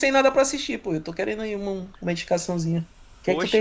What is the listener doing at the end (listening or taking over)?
taking over